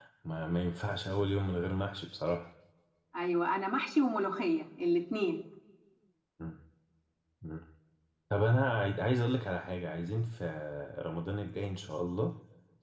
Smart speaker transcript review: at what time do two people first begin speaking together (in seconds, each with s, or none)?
none